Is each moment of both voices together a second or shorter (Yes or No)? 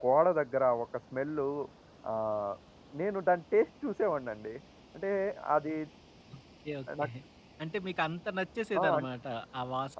Yes